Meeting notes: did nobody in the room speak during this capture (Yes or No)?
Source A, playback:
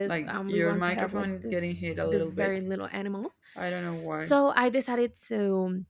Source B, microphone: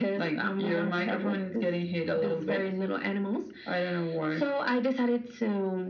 Yes